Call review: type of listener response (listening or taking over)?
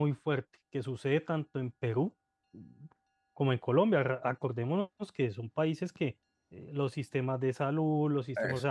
listening